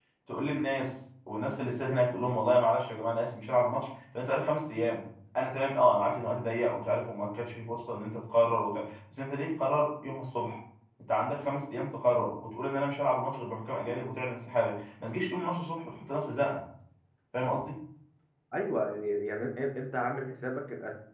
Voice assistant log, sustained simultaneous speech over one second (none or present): none